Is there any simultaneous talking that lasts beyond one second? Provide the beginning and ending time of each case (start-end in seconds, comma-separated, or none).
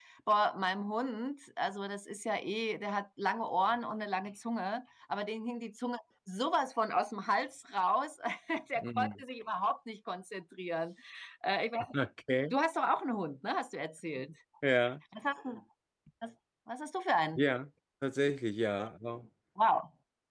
none